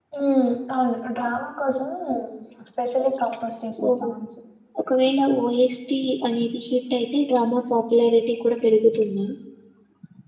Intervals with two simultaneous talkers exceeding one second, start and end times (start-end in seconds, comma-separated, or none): none